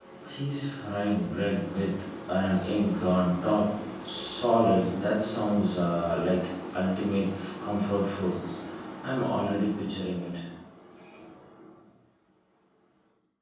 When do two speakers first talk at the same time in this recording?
none

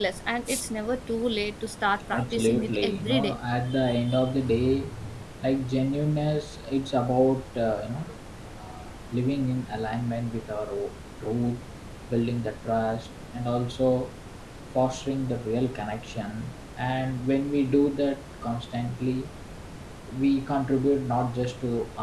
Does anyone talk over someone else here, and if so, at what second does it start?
2.1 s

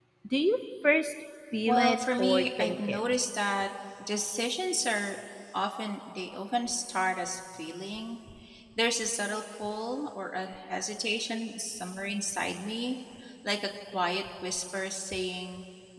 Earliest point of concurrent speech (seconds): 1.7 s

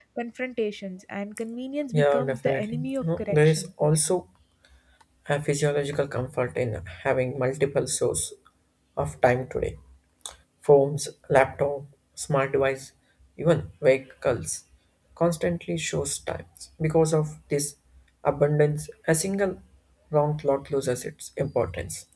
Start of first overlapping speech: 1.9 s

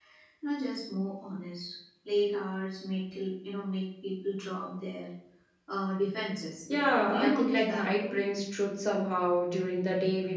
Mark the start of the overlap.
6.7 s

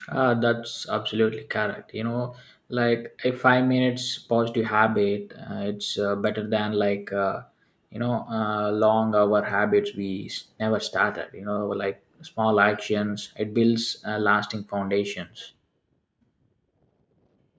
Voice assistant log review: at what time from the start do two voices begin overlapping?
none

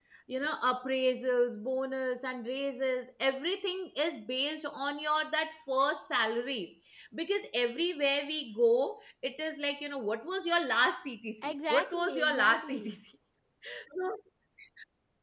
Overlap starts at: 11.4 s

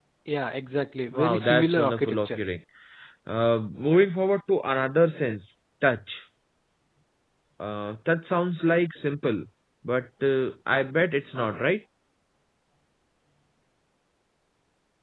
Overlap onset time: 1.1 s

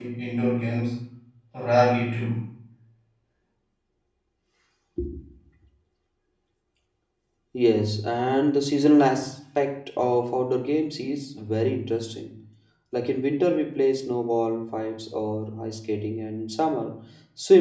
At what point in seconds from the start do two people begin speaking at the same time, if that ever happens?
none

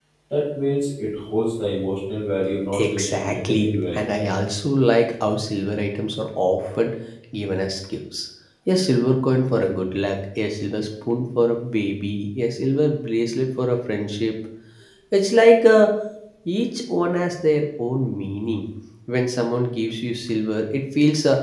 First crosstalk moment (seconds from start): 2.7 s

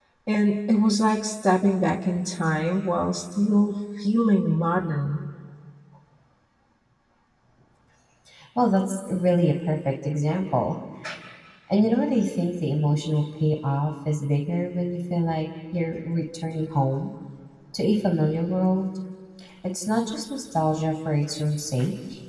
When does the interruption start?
none

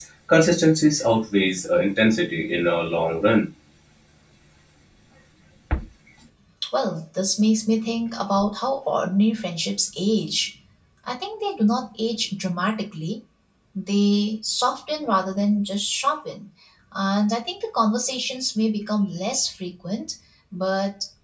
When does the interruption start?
none

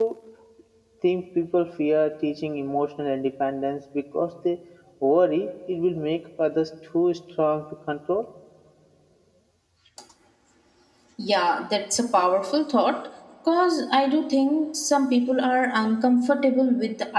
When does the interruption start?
none

